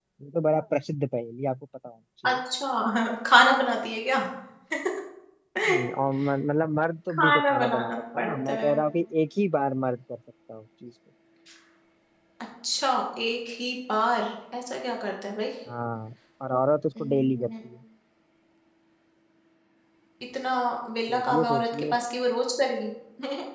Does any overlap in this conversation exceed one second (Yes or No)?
Yes